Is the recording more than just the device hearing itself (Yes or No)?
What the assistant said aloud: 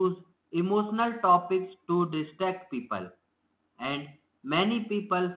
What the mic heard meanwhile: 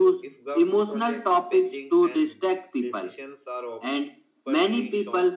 Yes